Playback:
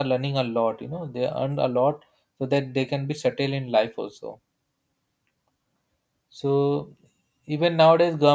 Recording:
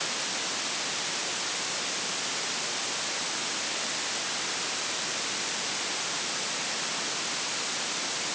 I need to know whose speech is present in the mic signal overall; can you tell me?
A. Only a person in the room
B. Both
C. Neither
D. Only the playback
C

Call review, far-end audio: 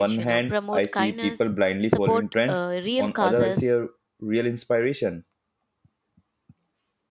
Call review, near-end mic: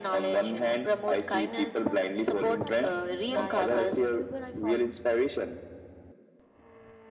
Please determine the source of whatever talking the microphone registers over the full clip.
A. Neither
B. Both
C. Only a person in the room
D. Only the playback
B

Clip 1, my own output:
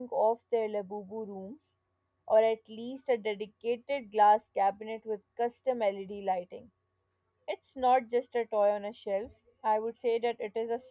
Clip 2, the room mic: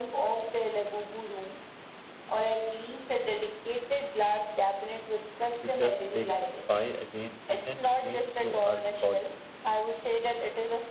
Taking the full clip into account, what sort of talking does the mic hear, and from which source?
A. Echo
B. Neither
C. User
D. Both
D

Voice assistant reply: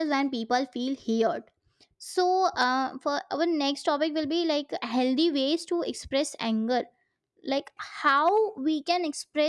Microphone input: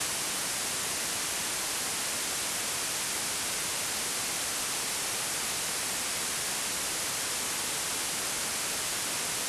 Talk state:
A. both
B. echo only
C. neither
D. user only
C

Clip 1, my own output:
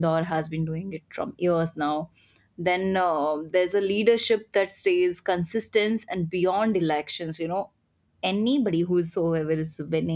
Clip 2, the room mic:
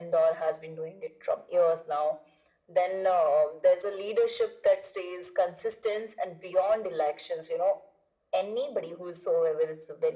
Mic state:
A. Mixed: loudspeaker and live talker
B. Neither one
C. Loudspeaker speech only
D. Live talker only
C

